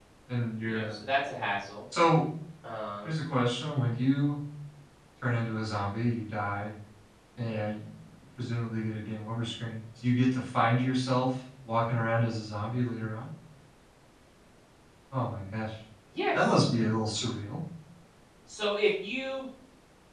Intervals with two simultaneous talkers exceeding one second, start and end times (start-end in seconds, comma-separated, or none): none